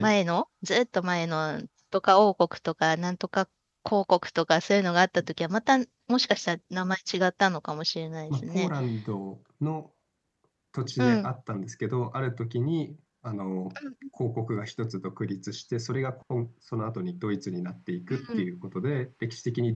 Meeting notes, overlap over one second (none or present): none